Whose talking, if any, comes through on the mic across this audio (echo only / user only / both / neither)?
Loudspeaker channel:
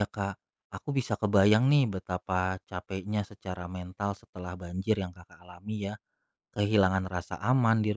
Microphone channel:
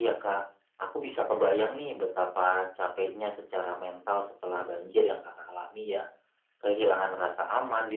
echo only